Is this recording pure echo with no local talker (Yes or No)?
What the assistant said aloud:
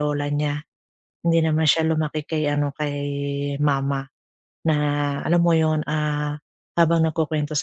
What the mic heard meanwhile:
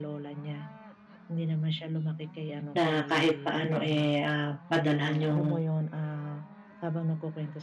No